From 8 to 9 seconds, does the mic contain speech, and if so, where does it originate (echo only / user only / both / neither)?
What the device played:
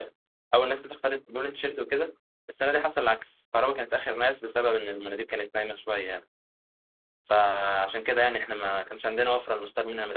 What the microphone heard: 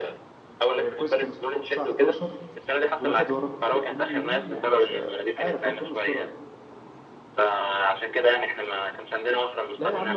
echo only